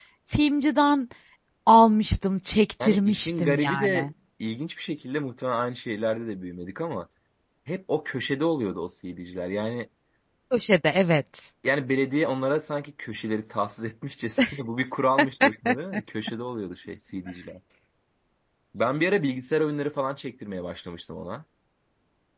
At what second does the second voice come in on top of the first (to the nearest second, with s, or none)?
3 s